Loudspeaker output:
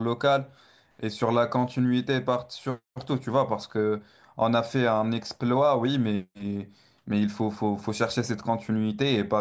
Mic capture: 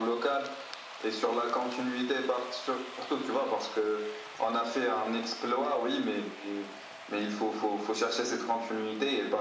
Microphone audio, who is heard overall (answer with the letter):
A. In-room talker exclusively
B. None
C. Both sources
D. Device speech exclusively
D